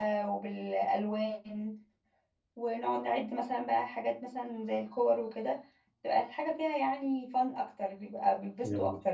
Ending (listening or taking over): taking over